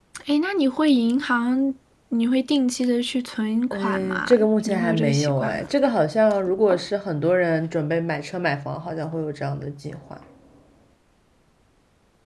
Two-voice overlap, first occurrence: 3.7 s

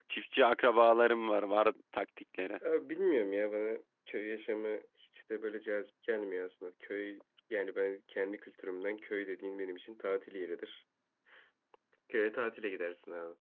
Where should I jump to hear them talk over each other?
none

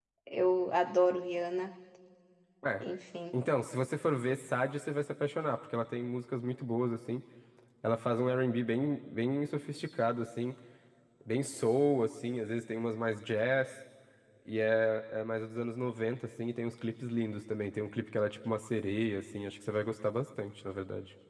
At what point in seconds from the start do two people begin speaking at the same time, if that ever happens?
none

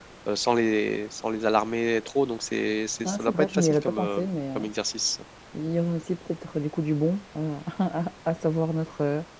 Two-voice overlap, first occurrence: 3.0 s

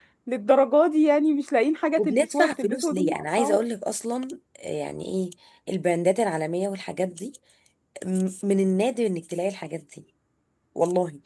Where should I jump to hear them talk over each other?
2.0 s

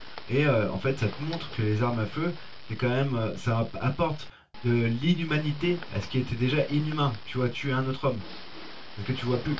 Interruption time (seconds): none

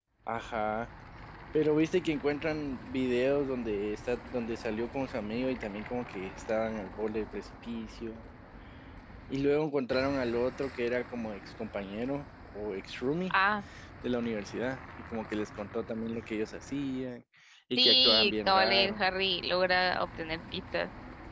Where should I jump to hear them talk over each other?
17.8 s

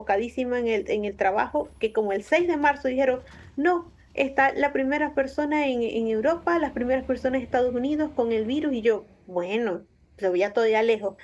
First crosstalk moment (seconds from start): none

